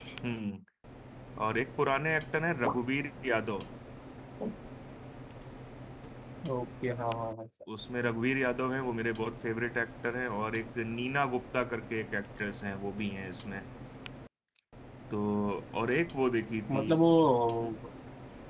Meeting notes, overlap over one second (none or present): none